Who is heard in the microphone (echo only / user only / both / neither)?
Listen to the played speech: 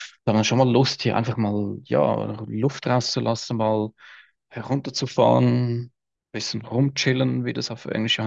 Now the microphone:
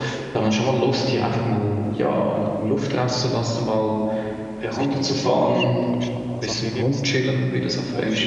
both